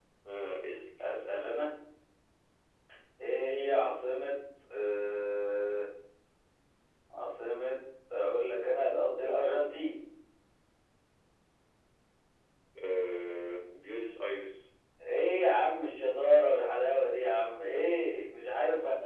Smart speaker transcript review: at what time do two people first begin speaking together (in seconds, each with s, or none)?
none